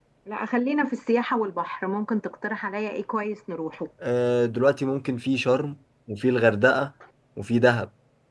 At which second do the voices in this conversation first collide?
none

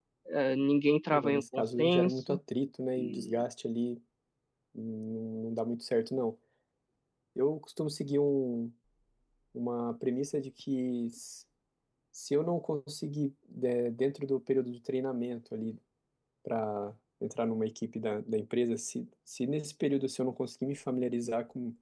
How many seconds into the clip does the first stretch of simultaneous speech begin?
1 s

